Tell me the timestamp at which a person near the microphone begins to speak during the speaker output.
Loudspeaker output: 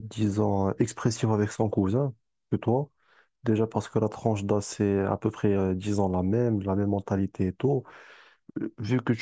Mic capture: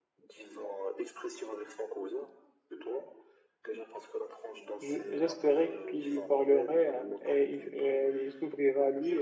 4.8 s

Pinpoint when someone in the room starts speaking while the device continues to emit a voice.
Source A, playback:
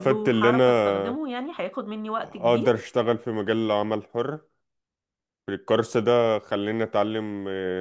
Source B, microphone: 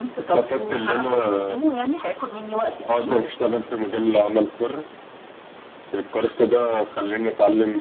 none

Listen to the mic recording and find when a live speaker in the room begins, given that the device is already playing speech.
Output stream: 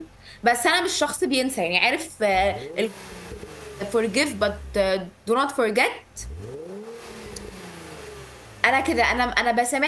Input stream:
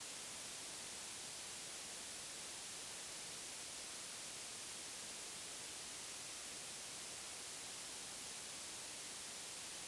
none

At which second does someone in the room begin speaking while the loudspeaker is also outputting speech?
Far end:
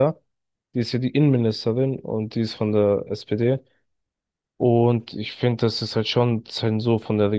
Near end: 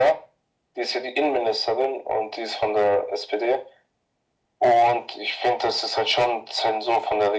none

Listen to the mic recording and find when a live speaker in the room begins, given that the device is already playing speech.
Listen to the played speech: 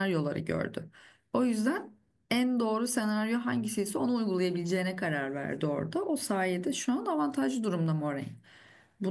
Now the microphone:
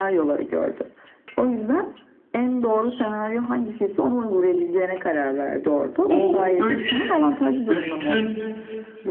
6.0 s

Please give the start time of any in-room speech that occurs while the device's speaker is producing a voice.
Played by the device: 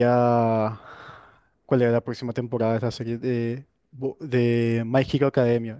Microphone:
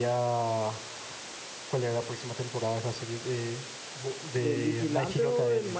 4.3 s

